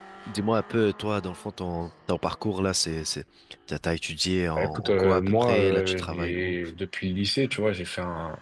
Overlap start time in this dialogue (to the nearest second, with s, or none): 5 s